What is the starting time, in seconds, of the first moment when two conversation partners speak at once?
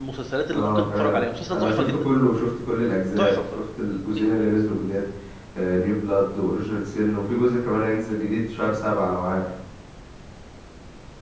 0.5 s

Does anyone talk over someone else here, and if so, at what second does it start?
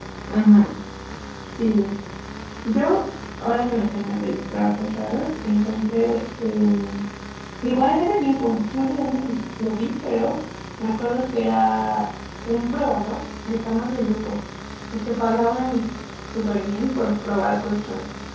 none

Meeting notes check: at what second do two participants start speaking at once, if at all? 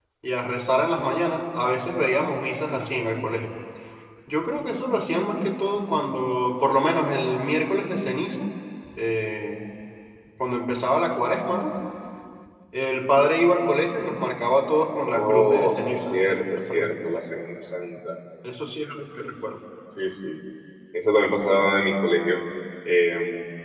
15.1 s

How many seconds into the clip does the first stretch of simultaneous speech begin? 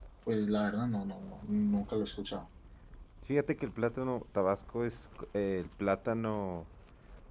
none

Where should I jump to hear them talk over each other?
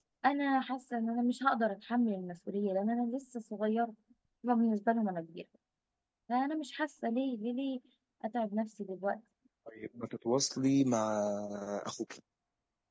none

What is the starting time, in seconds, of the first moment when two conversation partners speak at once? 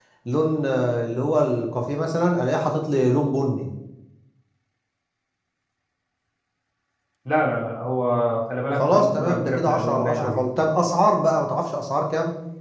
8.8 s

